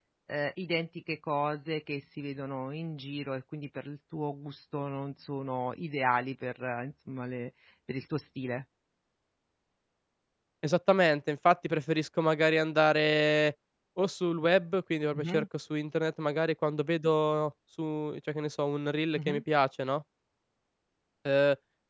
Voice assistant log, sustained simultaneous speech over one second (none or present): none